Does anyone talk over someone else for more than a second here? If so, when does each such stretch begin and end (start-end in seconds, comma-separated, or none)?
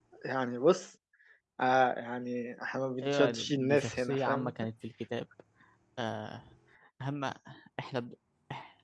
3.0-4.5